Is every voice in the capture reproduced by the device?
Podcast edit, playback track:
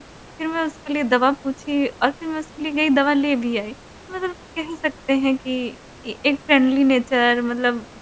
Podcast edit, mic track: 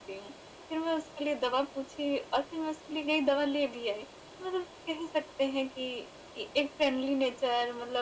Yes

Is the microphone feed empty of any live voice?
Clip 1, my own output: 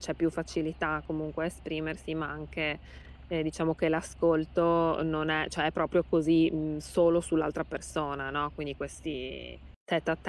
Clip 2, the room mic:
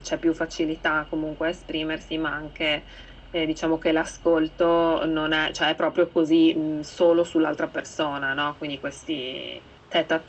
Yes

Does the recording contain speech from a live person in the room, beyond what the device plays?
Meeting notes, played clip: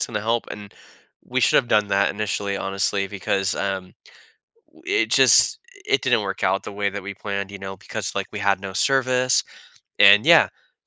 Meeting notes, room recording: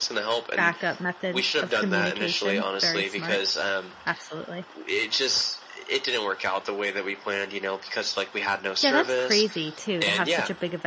Yes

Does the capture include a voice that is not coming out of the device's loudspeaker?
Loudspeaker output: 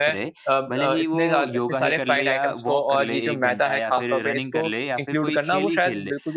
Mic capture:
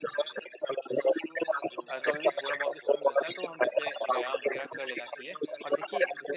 Yes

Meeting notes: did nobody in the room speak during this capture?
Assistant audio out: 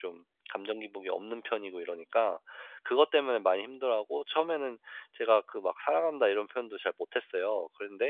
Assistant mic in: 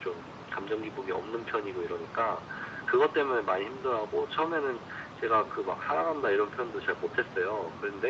Yes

